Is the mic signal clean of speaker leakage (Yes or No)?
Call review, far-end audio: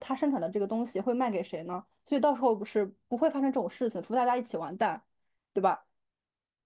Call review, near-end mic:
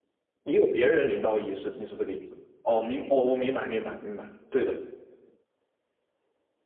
Yes